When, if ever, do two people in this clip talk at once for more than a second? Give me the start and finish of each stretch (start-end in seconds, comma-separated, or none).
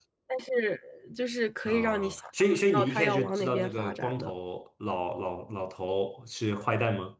1.6-4.3